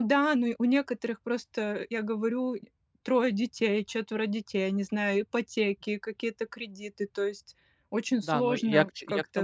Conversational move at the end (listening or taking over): taking over